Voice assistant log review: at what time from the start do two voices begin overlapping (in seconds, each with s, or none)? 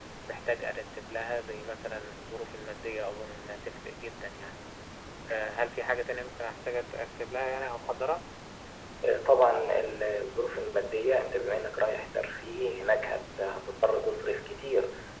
none